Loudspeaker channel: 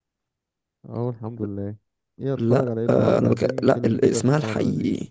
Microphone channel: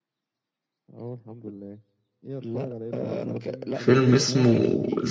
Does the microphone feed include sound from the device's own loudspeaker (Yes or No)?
Yes